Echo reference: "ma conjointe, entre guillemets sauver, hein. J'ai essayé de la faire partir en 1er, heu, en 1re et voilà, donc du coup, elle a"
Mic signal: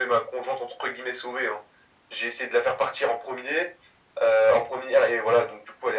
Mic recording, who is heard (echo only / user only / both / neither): echo only